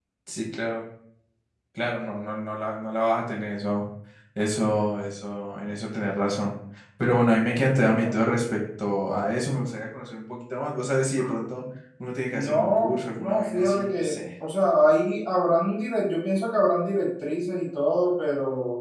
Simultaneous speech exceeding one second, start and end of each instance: 12.3-14.2

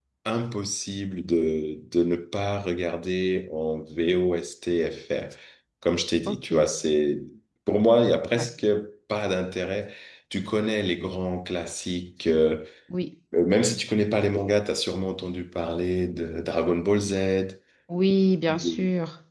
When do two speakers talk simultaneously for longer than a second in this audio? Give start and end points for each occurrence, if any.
none

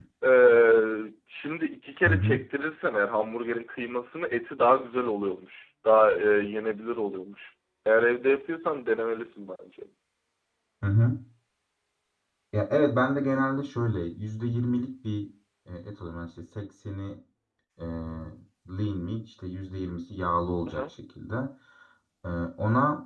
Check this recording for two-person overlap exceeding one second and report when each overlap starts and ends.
none

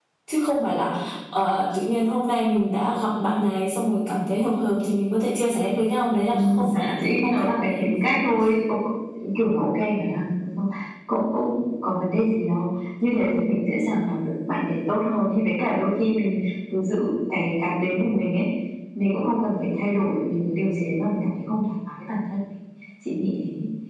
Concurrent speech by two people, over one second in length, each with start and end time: 6.3-7.9

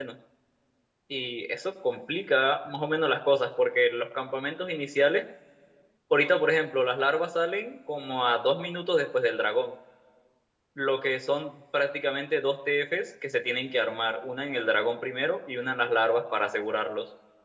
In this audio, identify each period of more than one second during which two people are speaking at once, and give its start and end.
none

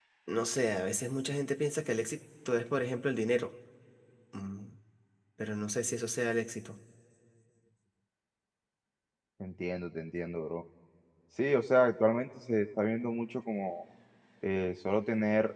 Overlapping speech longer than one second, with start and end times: none

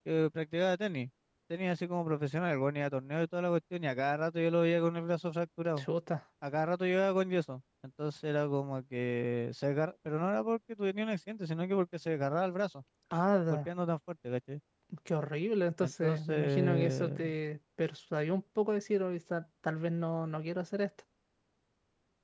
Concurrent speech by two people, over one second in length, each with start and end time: 15.8-17.2

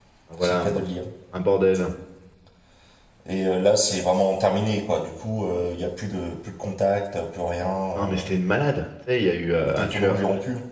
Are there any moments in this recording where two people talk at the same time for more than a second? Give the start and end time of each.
none

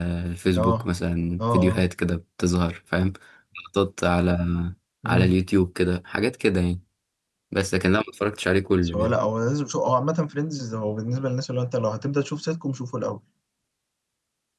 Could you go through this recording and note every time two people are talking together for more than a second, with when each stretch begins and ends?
none

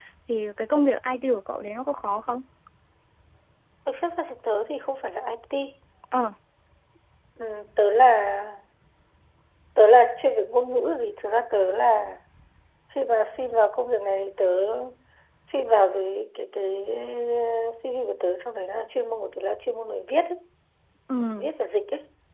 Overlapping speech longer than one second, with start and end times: none

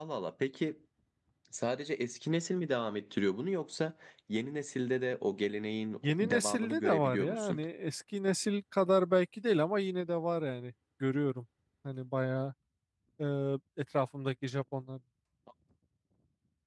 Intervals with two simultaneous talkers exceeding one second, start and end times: 6.0-7.6

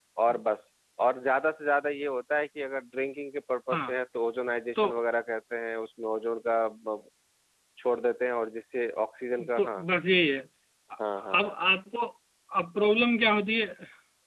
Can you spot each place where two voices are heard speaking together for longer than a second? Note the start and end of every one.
none

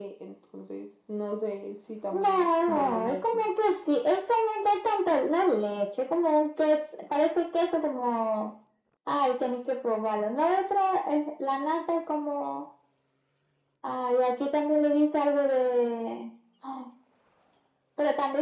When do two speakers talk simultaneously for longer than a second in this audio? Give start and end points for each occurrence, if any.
2.1-3.5

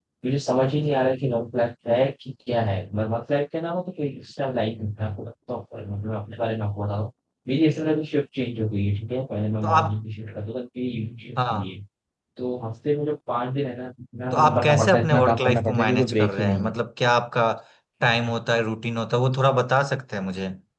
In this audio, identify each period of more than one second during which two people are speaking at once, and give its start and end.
14.3-16.7

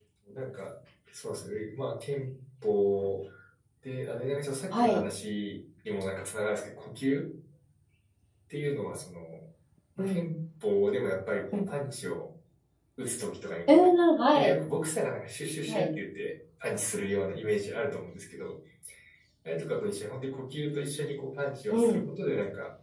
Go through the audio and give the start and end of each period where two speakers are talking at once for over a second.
none

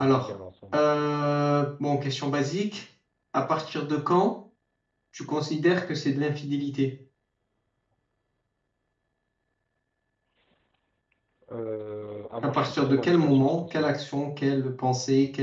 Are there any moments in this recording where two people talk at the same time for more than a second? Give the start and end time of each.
12.4-13.9

